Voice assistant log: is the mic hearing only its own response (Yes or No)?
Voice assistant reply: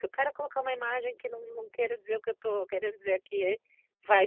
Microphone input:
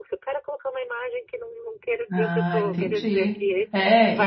No